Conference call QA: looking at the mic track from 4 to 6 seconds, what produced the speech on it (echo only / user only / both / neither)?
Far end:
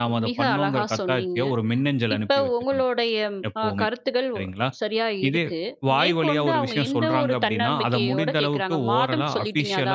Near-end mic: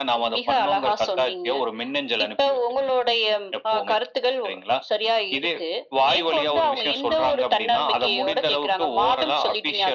echo only